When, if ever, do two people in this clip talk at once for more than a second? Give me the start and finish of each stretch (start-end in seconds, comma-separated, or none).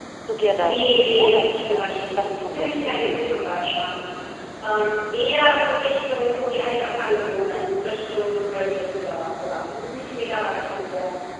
0.6-3.6